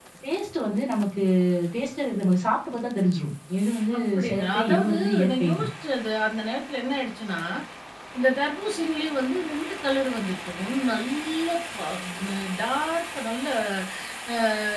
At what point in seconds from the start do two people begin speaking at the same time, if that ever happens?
3.9 s

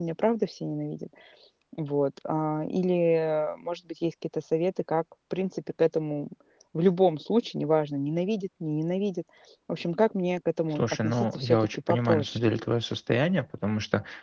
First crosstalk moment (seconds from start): 10.8 s

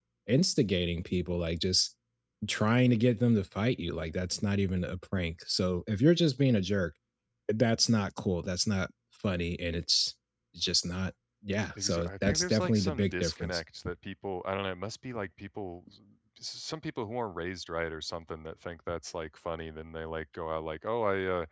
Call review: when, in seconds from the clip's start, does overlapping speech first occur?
11.8 s

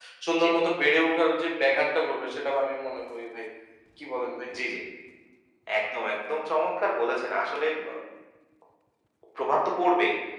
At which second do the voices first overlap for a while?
none

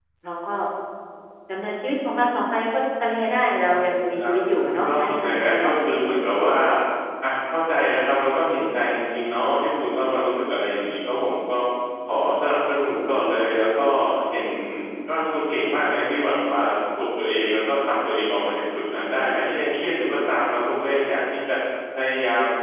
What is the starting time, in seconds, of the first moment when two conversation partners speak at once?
3.6 s

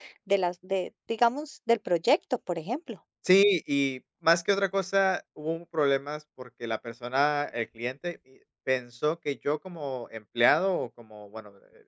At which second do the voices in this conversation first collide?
none

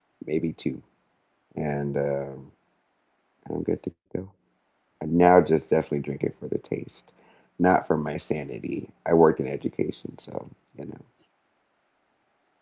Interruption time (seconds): none

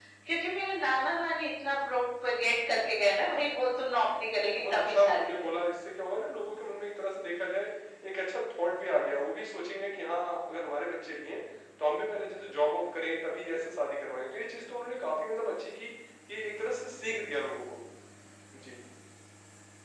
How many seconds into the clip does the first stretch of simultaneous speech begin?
4.4 s

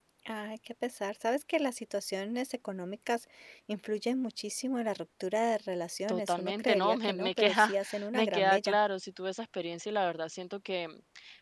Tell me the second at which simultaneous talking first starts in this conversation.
6.1 s

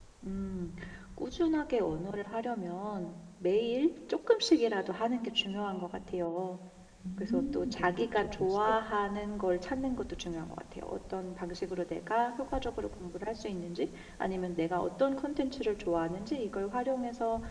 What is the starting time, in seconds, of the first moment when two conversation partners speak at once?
7.2 s

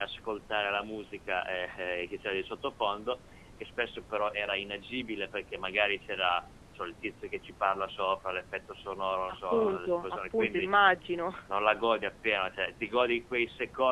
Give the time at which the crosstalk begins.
9.3 s

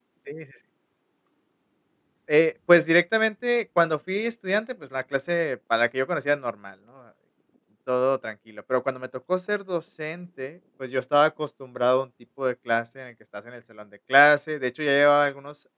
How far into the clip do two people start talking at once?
none

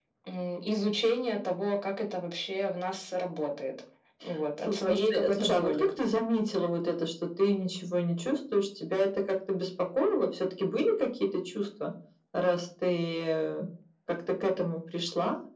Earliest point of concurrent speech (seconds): 4.6 s

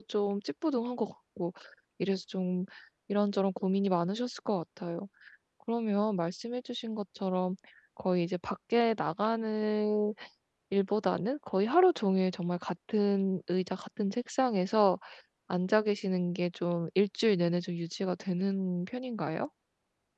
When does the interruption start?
none

